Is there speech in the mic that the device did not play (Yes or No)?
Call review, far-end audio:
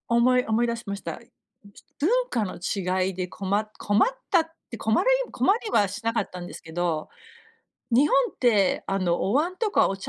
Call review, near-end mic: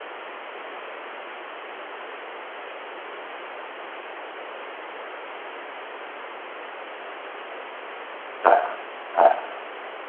Yes